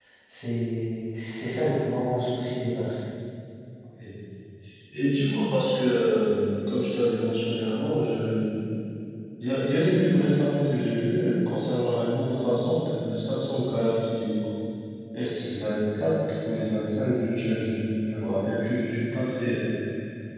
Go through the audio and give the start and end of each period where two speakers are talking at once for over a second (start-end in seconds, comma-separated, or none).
none